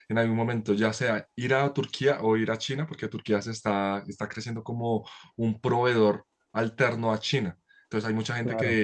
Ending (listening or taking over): listening